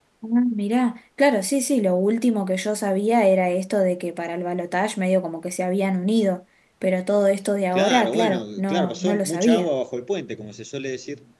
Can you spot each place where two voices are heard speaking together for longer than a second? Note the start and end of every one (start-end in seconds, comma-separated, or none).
7.7-9.7